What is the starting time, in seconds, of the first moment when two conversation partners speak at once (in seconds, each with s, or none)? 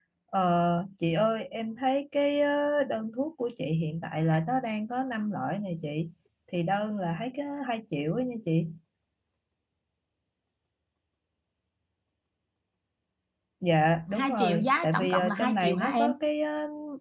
14.2 s